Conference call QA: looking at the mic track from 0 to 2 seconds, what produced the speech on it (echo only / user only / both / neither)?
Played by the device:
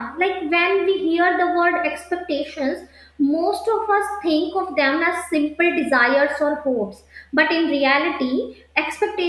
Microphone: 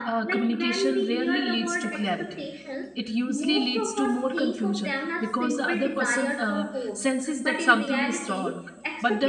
both